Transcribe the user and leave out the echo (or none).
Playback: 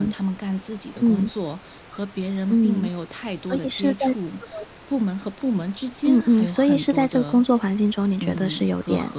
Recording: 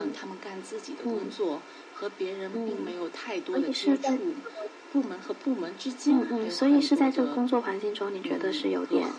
none